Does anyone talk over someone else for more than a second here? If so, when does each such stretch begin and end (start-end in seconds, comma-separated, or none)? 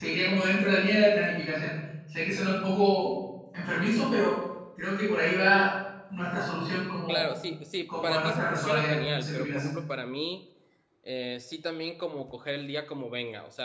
8.0-9.6